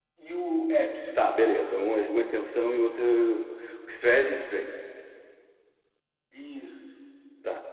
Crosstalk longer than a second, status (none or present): none